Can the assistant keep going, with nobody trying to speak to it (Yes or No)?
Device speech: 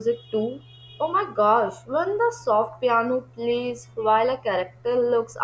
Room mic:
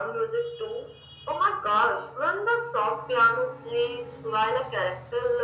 Yes